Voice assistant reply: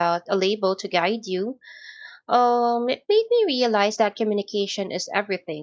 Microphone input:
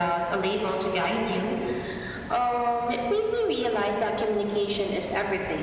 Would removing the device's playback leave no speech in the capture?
Yes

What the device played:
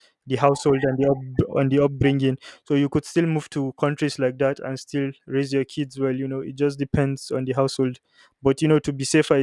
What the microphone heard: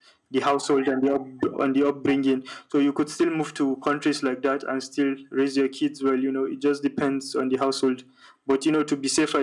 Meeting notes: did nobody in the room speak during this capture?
Yes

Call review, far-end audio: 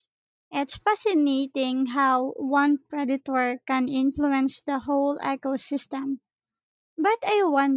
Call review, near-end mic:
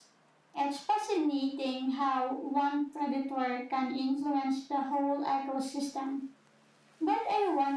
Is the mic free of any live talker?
Yes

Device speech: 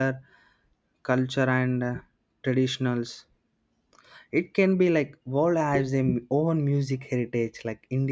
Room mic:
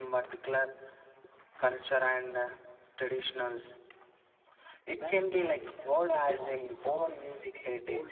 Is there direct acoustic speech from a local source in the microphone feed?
Yes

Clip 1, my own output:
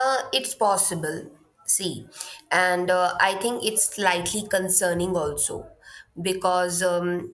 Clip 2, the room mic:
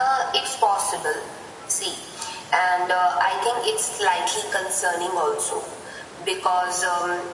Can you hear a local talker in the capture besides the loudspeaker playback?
No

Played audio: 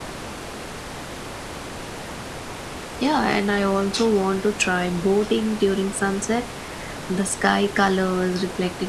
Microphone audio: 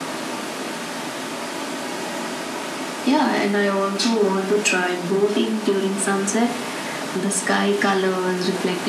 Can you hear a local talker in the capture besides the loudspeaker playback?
No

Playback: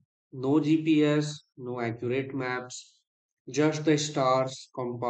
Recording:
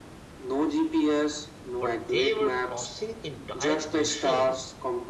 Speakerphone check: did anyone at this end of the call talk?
Yes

